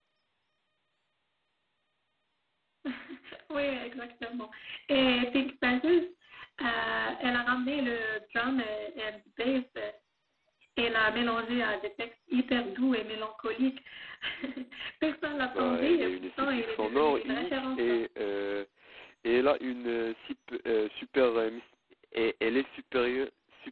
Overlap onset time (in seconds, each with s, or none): 15.5 s